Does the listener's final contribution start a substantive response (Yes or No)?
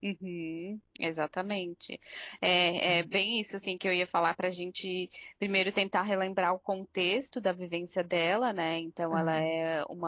No